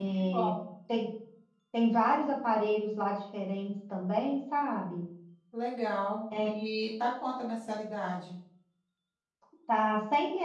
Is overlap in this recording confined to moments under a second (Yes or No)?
Yes